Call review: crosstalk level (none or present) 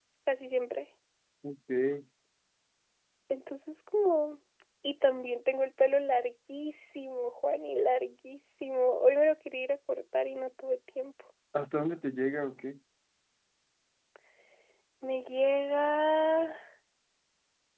none